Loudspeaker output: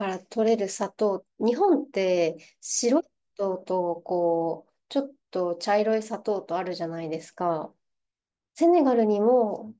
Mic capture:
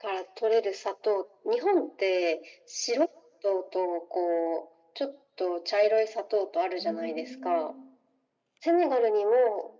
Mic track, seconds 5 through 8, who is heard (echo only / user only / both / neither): both